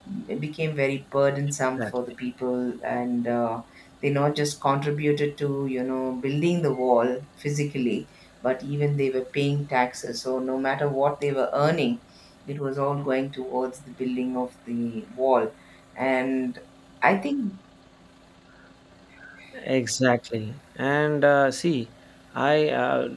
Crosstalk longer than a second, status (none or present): none